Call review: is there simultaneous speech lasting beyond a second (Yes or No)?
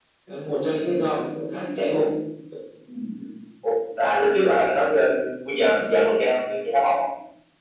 No